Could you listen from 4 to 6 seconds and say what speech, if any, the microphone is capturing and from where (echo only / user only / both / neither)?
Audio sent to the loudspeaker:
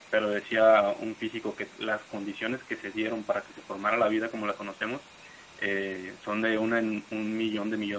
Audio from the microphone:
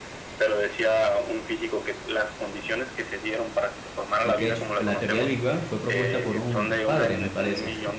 both